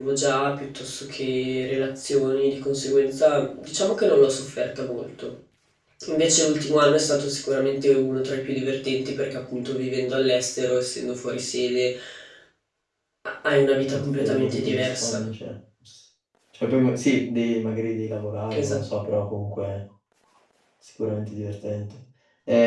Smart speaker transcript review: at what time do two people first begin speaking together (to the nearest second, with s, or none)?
14 s